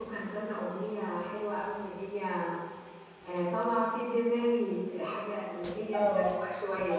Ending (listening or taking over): taking over